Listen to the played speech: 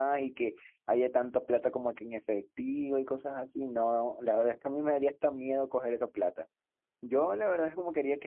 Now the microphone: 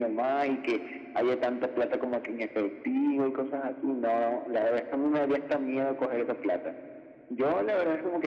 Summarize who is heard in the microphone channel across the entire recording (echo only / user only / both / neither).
echo only